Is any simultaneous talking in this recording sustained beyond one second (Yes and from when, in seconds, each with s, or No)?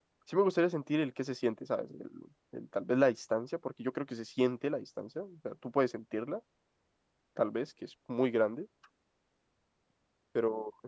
No